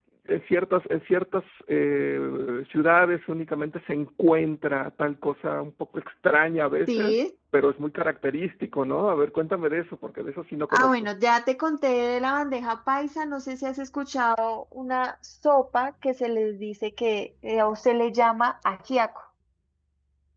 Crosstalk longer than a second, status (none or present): none